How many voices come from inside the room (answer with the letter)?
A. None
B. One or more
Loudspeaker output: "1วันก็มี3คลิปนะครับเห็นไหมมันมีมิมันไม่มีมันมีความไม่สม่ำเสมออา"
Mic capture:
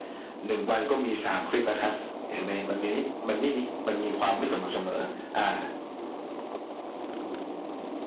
A